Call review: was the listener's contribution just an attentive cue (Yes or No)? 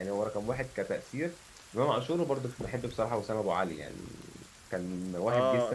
No